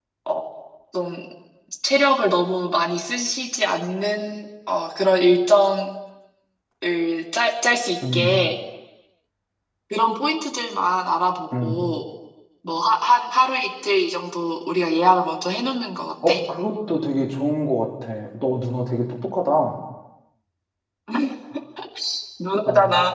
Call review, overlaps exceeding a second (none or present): none